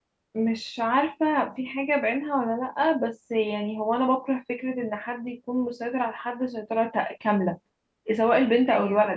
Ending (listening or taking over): listening